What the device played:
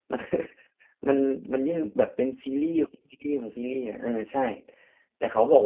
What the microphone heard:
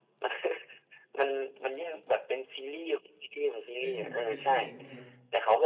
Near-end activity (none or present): present